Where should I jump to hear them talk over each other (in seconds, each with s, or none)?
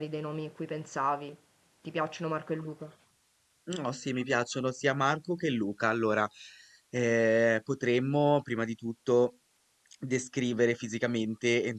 none